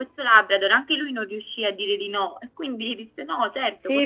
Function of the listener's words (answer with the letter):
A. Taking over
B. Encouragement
A